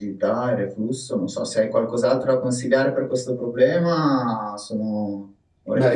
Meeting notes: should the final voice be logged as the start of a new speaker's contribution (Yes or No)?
Yes